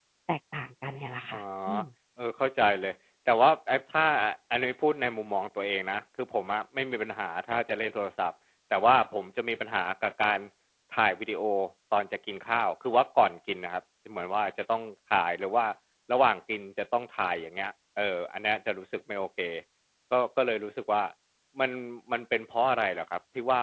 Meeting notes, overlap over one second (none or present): none